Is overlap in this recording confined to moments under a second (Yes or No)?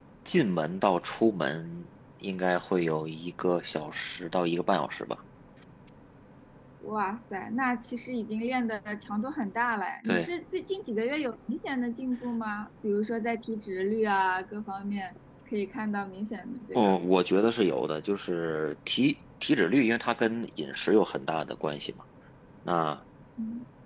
Yes